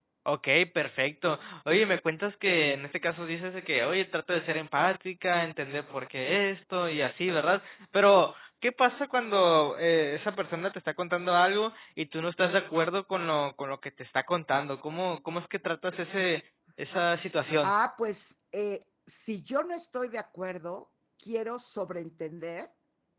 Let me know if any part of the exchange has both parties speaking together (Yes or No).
No